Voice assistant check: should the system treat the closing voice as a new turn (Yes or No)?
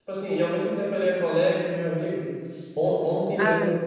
No